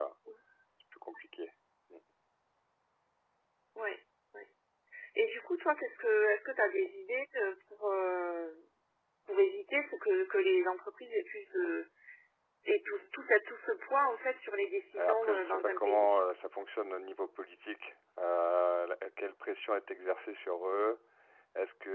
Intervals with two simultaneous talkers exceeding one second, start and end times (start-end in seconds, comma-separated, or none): 15.0-16.2